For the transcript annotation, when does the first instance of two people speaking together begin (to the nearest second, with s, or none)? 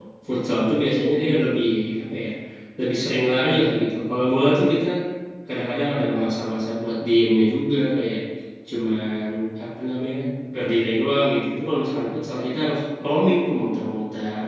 none